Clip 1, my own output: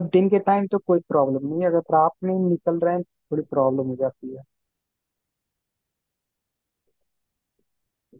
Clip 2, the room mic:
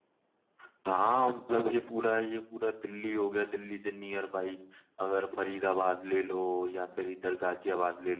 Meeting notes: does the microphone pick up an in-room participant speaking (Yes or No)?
Yes